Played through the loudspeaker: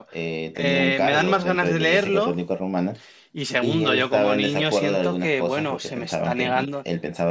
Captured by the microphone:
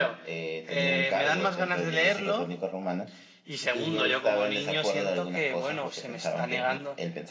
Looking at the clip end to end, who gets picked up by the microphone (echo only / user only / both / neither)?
echo only